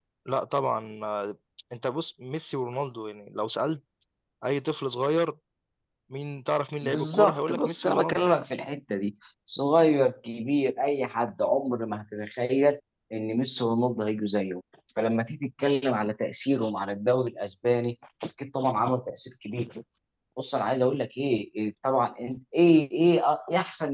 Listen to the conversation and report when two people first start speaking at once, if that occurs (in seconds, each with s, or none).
6.8 s